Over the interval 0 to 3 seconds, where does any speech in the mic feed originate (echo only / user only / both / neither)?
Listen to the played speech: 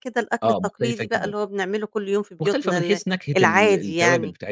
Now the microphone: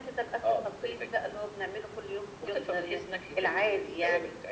echo only